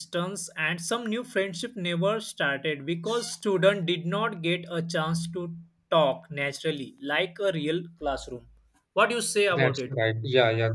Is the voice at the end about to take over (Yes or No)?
Yes